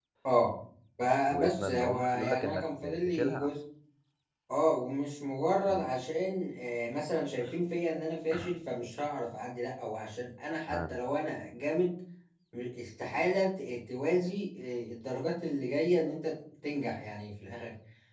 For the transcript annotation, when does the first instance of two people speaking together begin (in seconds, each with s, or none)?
1.3 s